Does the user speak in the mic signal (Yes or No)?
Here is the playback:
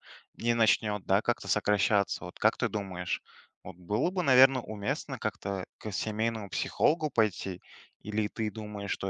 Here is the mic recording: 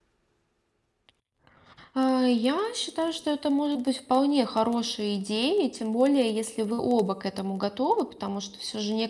Yes